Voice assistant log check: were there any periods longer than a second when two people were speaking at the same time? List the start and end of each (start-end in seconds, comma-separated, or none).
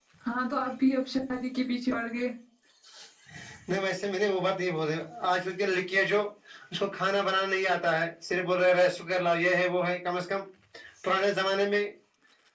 none